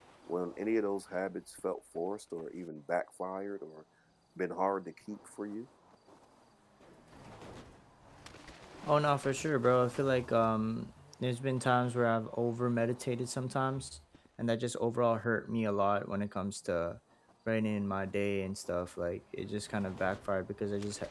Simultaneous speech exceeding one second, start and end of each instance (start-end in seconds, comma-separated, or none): none